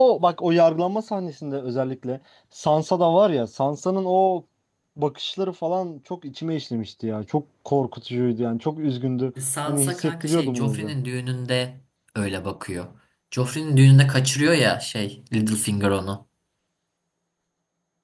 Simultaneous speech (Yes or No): Yes